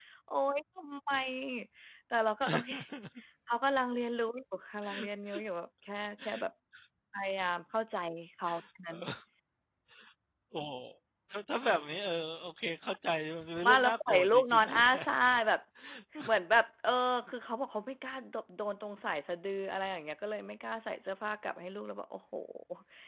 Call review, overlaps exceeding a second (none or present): present